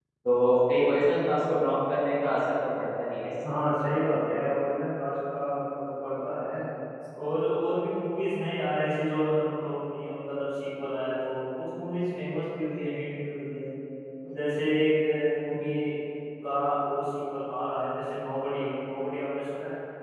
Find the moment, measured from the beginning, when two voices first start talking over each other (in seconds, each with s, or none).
none